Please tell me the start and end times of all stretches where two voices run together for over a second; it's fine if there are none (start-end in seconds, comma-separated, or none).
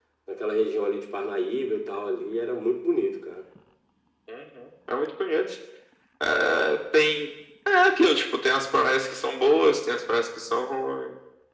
none